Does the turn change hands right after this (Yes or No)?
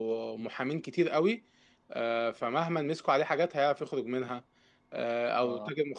No